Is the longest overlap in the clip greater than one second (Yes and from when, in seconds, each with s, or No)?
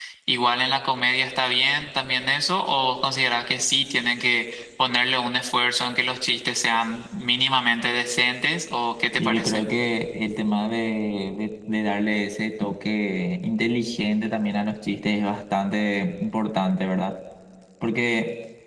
No